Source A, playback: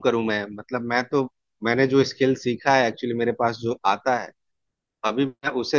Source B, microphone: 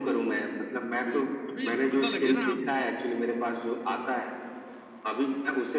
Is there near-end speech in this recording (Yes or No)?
Yes